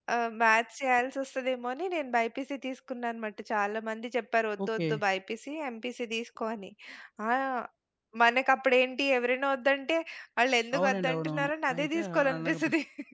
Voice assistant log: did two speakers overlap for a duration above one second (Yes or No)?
Yes